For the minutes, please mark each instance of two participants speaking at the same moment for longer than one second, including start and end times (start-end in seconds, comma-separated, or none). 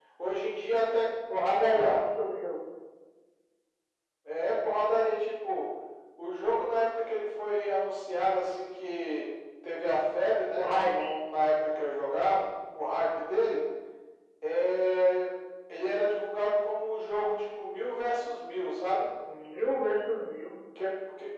none